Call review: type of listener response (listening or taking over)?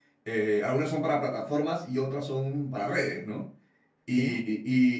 listening